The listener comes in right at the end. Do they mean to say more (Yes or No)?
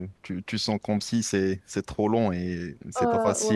No